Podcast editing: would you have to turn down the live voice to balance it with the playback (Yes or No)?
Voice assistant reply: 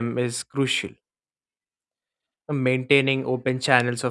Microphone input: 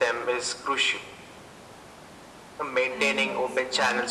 No